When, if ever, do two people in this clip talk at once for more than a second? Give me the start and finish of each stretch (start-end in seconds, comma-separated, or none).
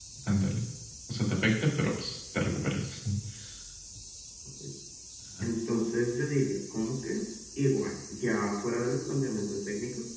none